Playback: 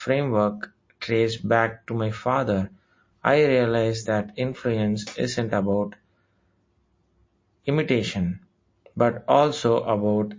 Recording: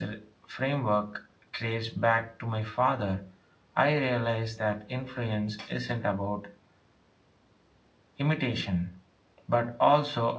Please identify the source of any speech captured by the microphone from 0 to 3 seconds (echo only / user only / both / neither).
echo only